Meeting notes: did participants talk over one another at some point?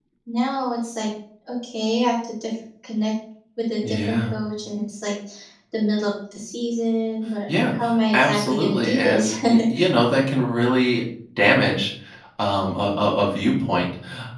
Yes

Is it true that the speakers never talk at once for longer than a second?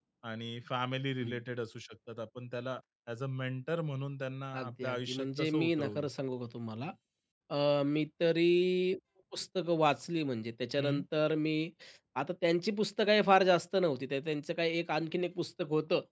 No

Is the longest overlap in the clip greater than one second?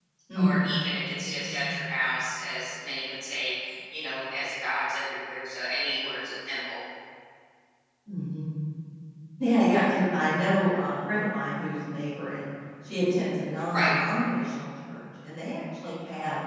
No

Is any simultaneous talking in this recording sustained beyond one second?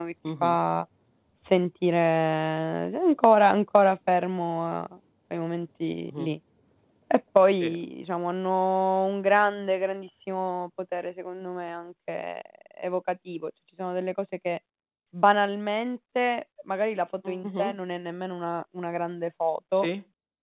No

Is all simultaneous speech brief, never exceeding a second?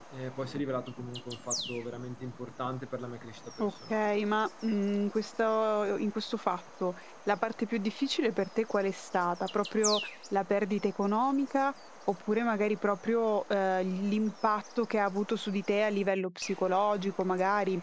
Yes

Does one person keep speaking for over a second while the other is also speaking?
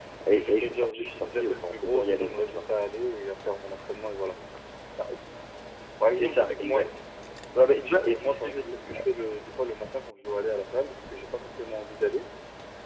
Yes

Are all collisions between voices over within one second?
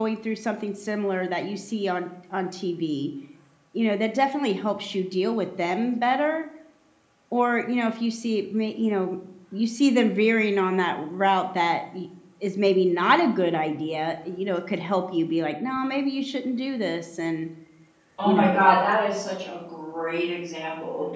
Yes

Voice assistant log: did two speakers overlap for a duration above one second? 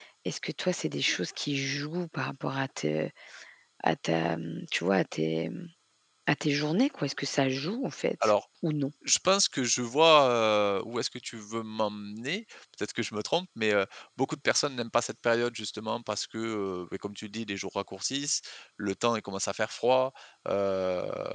No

